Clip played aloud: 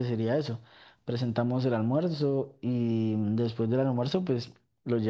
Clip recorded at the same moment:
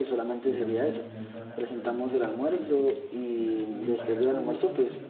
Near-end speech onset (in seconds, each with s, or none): 0.5 s